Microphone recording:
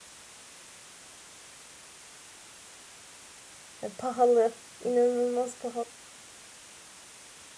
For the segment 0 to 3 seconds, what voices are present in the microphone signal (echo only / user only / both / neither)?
neither